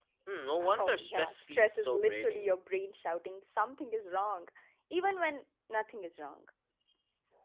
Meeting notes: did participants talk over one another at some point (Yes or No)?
Yes